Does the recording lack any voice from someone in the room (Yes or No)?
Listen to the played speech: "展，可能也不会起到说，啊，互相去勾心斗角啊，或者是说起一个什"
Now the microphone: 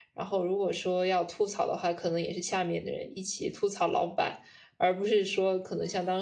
No